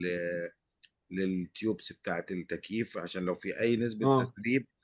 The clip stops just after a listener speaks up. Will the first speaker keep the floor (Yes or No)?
Yes